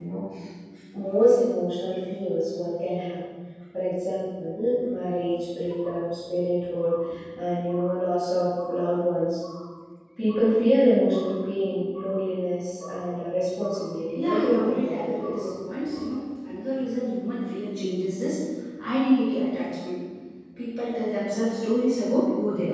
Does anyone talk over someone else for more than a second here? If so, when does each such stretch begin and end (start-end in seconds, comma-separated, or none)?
14.2-15.5